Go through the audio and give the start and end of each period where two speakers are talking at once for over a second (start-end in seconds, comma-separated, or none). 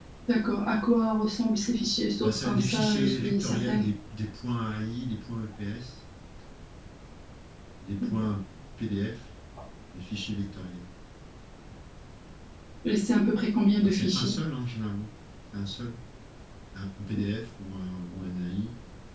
2.2-3.9